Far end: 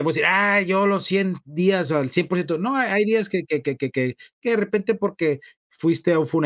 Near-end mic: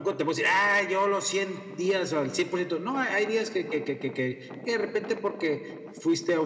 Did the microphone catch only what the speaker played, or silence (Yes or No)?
Yes